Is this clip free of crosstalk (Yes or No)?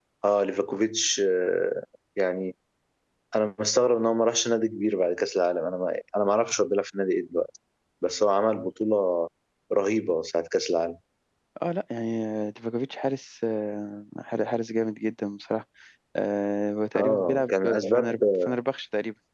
No